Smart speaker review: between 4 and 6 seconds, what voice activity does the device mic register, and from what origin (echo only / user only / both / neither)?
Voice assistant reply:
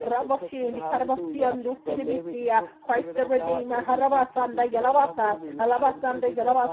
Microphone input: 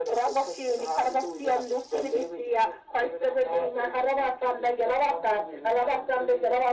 echo only